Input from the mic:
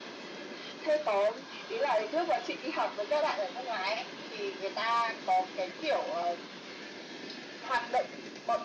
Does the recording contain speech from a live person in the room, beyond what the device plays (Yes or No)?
No